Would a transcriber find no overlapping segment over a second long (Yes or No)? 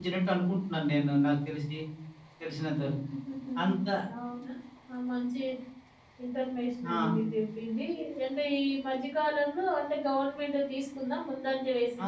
Yes